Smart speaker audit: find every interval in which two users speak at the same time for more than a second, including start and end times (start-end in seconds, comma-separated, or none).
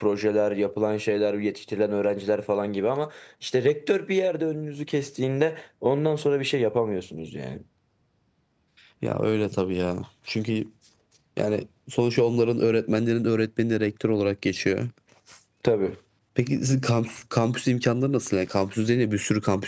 none